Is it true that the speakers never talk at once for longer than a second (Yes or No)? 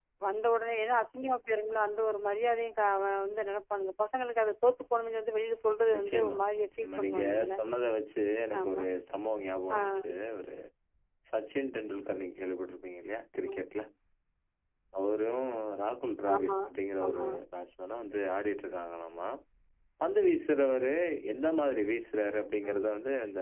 No